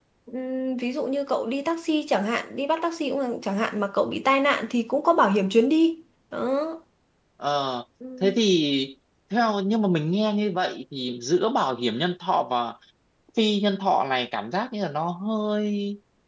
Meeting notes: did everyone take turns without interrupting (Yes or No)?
Yes